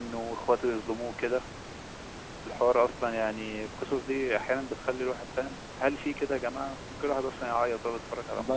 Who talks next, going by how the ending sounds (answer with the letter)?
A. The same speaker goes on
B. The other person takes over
B